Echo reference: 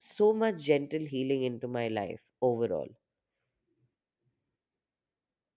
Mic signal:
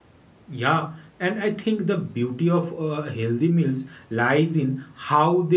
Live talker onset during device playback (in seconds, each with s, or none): 0.5 s